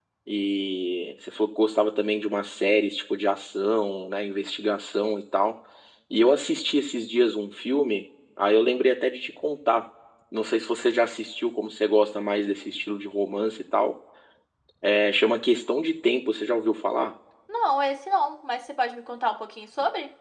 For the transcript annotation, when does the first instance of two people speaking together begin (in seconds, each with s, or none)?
none